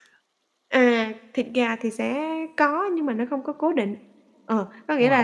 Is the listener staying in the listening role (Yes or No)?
Yes